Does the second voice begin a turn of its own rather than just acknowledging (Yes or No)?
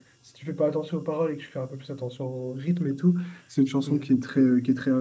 No